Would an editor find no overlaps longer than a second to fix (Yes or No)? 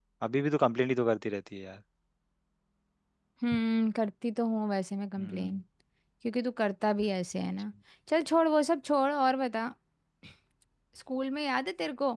Yes